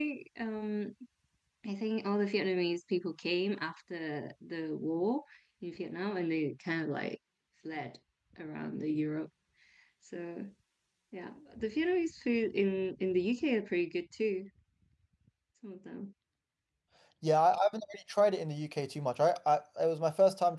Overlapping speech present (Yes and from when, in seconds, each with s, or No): No